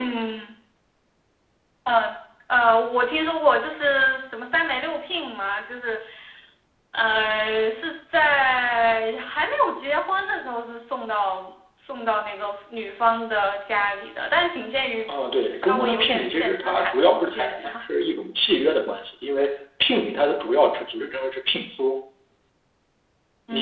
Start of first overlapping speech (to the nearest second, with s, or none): 16 s